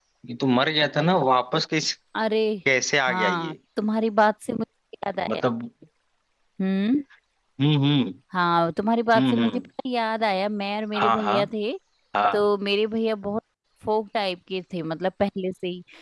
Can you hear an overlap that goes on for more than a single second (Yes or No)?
No